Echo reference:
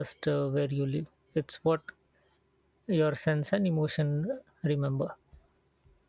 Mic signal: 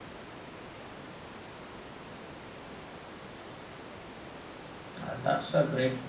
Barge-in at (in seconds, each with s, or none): 5.0 s